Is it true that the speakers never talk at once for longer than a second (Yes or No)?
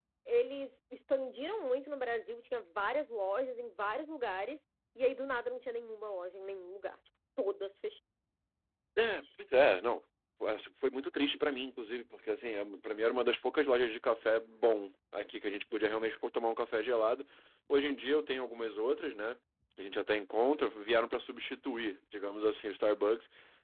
Yes